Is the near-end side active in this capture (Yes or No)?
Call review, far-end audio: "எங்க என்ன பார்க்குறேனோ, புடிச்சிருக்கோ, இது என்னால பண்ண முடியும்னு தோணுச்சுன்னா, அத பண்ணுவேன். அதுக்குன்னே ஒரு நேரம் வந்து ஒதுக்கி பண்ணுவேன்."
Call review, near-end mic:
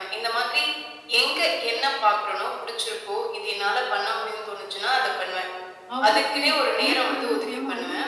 Yes